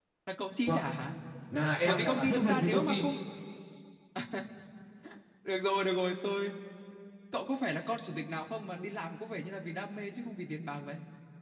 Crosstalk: present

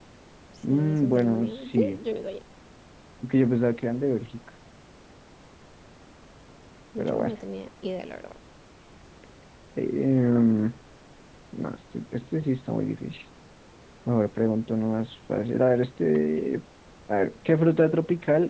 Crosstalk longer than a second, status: present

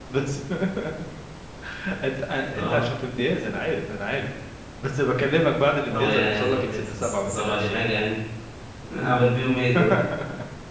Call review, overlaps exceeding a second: present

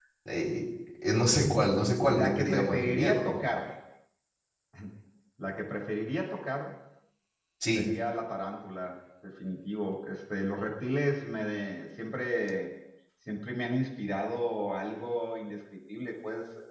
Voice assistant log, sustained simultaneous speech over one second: present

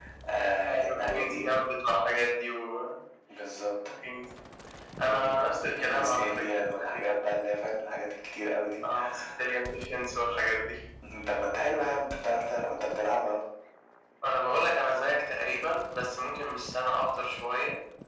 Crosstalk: present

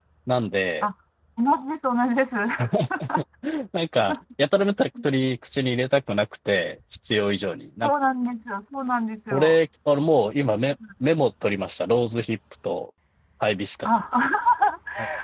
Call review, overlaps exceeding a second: none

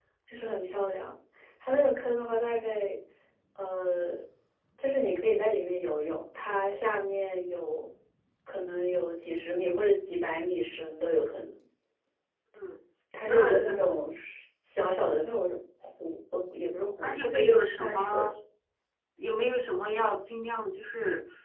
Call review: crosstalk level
present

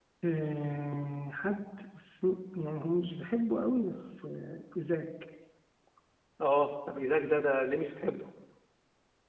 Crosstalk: none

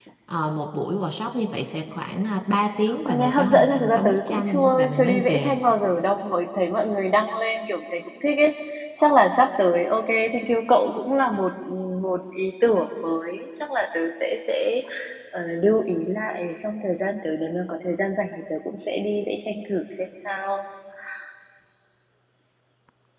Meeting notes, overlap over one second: present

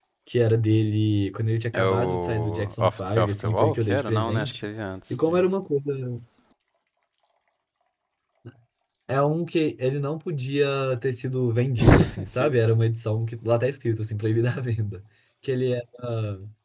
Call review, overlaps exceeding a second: present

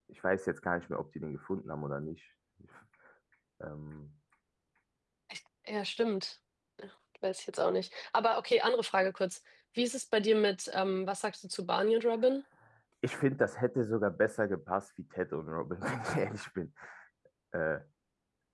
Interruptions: none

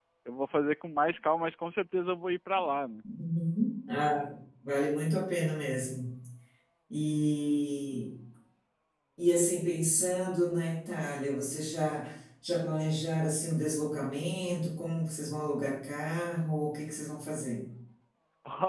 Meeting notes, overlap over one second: none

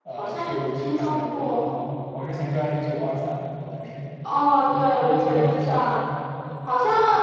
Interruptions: present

